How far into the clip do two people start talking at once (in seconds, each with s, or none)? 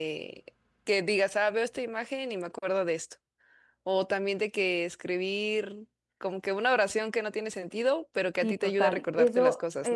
8.4 s